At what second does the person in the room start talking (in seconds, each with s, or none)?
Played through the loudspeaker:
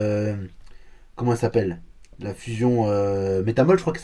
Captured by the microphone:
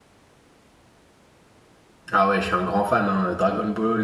2.1 s